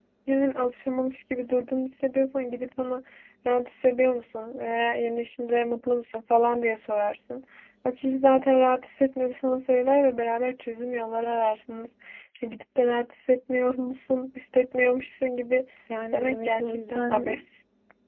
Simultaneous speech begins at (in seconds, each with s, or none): 16.1 s